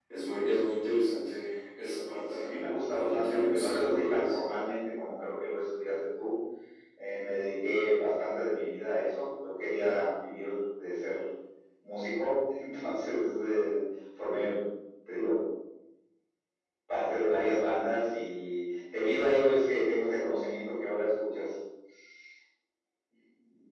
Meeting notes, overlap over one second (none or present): present